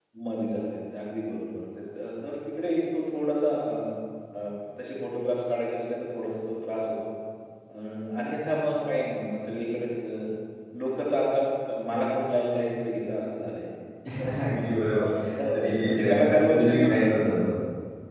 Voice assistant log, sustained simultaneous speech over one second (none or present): present